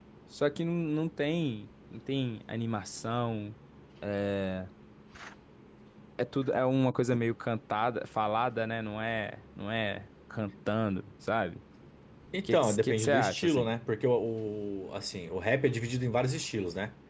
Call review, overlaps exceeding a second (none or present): present